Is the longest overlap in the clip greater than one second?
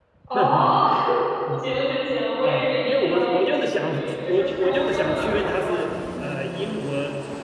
Yes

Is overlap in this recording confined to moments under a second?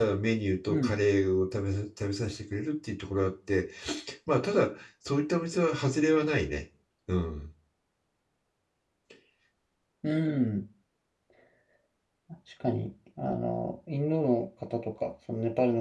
Yes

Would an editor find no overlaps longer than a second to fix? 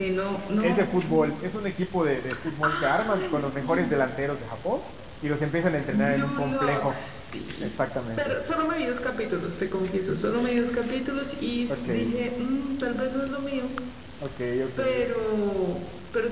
No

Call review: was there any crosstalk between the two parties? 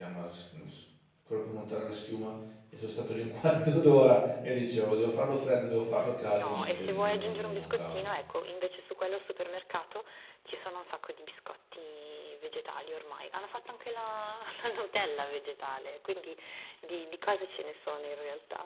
Yes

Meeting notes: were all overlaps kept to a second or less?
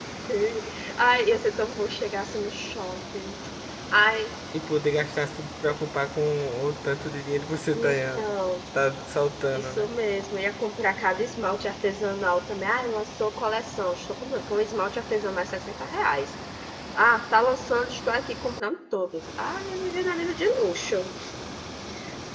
Yes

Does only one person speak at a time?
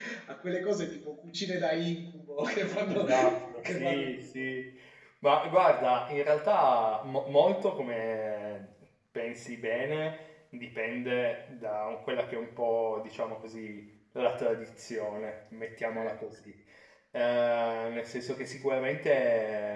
No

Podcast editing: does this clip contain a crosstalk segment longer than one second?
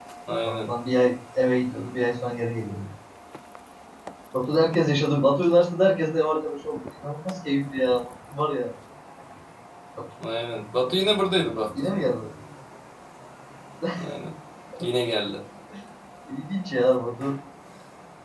No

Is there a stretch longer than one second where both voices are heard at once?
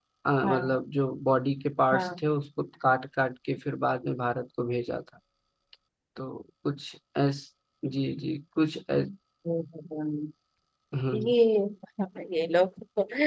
No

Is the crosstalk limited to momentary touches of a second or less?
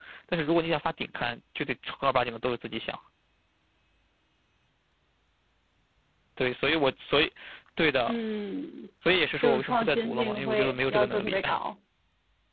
No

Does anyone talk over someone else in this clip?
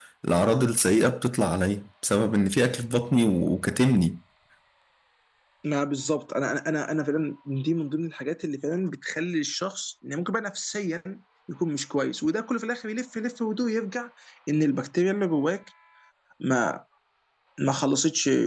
No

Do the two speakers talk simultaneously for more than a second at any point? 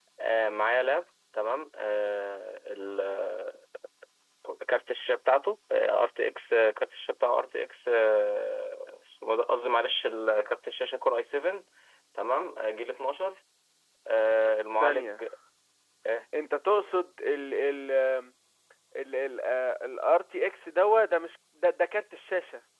No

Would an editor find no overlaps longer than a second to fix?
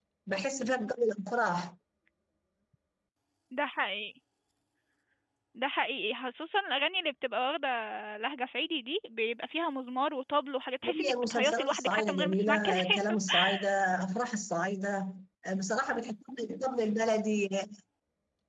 No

